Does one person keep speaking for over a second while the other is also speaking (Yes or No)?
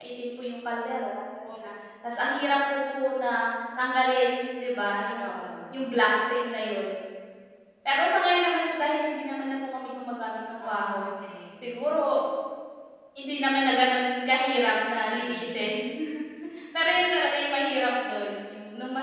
No